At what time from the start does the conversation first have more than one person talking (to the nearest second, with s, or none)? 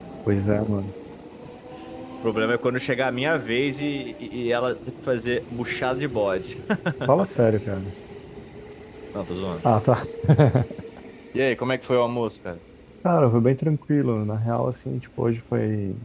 none